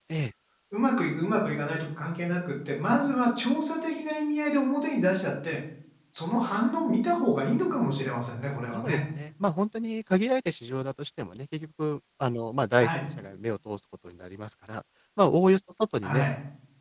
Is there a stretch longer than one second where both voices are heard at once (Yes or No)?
No